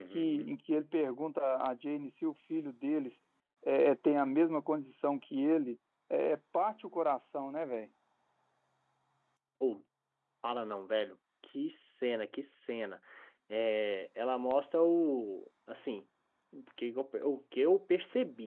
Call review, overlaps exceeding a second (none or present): none